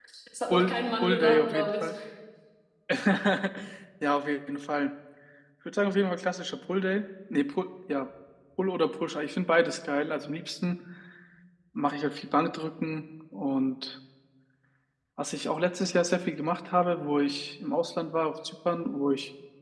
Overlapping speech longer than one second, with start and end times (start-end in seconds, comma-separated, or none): 0.5-1.9